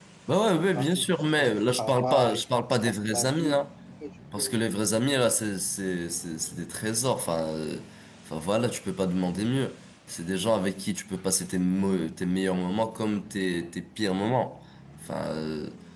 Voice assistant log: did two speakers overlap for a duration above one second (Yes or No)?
Yes